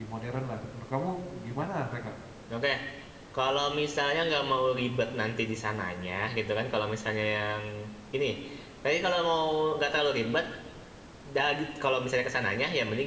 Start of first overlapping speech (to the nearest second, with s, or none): none